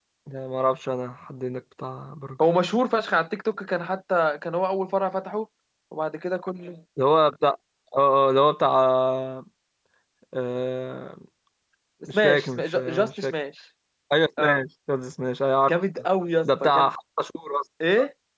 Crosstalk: present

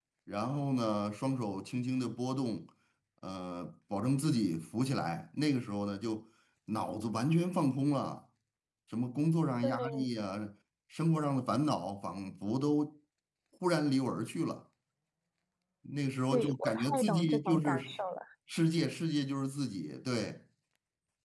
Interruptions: present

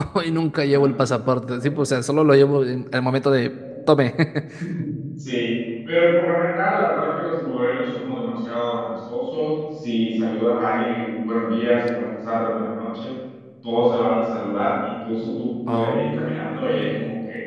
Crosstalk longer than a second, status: present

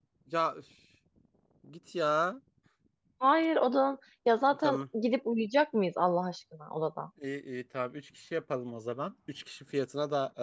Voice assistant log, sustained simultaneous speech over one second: none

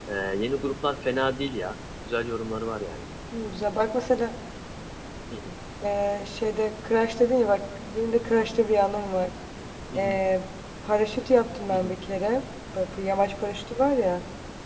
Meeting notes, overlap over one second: none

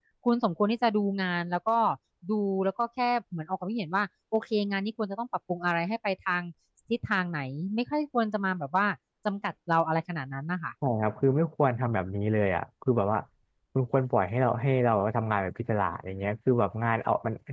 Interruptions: none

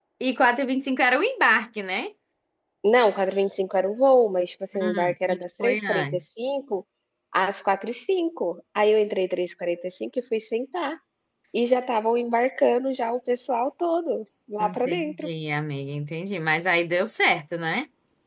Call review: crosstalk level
present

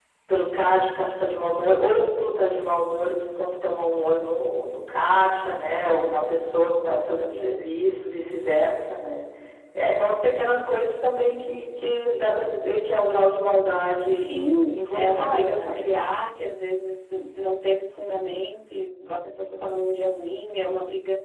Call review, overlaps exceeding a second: present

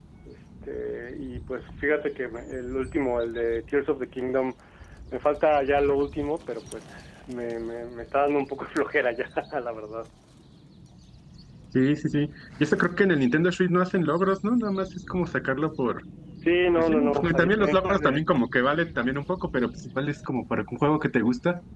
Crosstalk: present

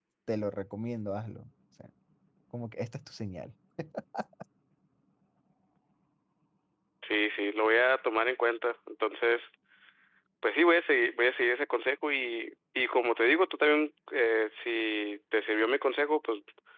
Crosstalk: none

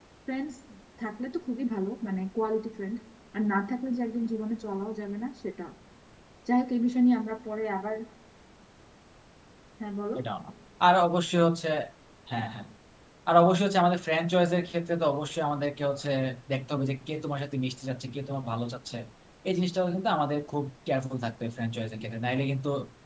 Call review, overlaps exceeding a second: none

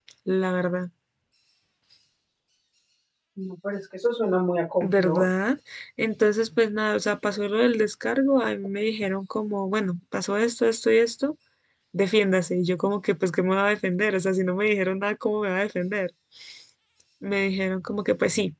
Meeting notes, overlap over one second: none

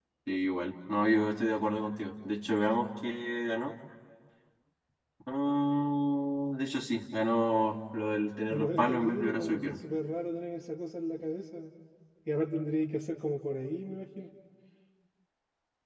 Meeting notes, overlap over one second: present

